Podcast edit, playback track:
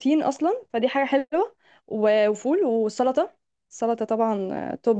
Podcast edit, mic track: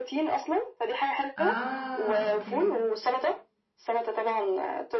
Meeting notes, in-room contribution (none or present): present